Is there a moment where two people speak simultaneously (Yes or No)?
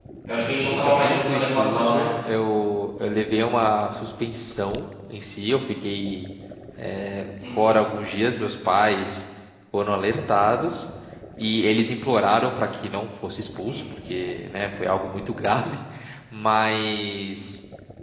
Yes